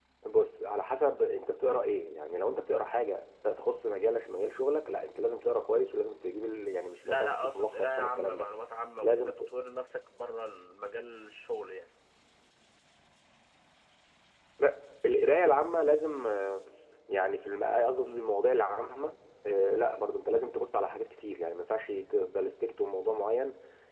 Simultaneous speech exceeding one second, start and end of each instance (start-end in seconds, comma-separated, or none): 7.0-8.5